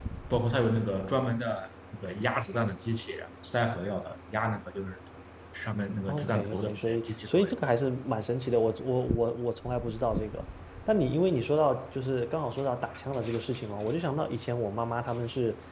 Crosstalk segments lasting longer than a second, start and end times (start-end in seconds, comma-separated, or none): 6.1-7.5